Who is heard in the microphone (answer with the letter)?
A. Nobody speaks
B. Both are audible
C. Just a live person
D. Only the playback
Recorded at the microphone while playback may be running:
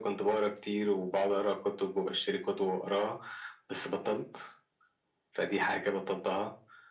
D